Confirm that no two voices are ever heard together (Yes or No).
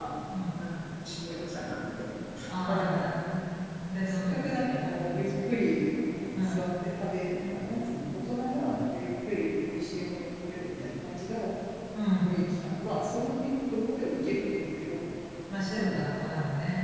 No